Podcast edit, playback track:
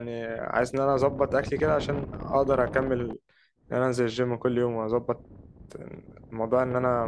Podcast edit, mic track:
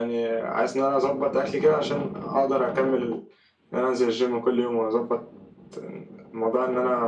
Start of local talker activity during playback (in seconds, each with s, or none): none